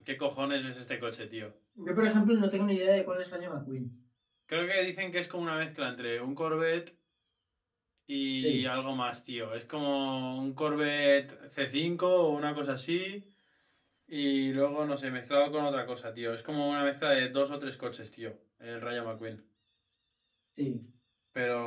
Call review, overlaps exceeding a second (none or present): none